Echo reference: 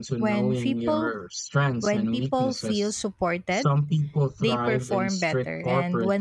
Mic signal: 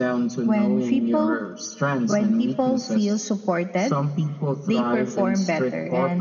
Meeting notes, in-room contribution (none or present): none